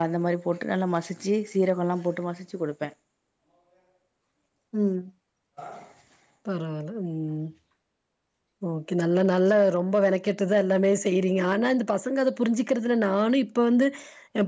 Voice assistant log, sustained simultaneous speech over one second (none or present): none